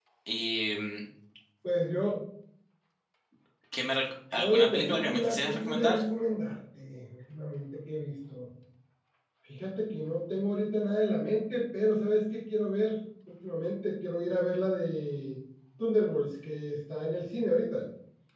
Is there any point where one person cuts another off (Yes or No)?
Yes